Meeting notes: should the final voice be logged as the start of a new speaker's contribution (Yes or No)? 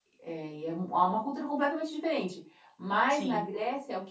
No